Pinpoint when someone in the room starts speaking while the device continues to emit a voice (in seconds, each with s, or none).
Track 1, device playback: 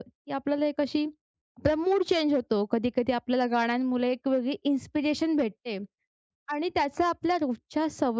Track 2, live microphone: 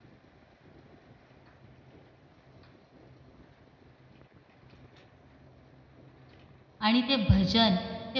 6.8 s